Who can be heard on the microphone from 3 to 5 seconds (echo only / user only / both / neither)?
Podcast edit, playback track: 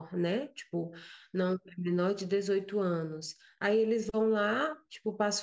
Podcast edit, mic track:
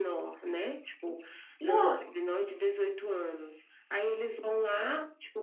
echo only